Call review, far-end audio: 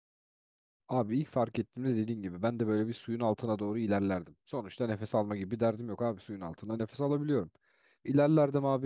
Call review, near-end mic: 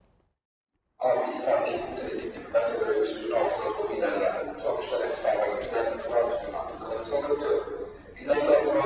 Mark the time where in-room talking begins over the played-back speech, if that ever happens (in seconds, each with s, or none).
none